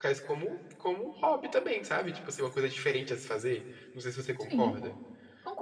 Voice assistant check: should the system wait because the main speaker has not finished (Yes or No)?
No